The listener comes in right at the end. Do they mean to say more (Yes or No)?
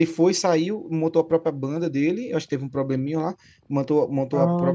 No